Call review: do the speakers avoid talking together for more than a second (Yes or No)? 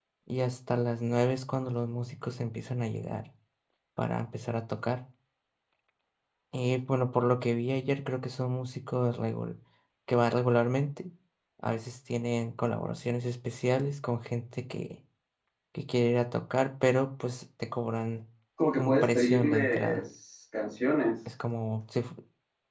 No